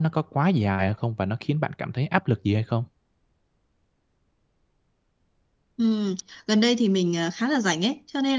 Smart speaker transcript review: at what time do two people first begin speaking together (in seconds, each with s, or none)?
none